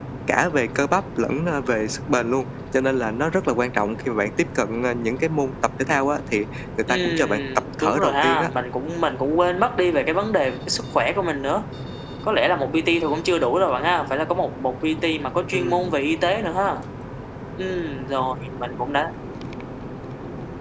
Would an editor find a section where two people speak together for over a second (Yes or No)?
Yes